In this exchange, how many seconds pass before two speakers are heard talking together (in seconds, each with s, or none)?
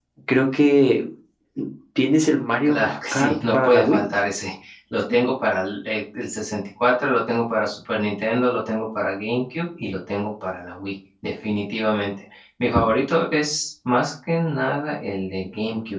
2.6 s